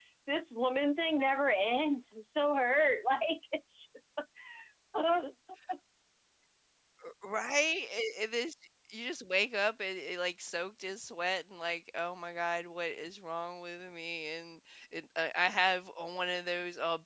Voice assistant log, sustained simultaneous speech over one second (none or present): none